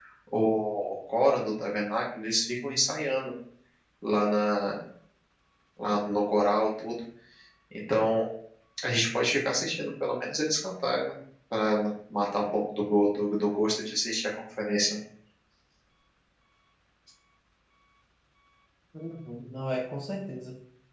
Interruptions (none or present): none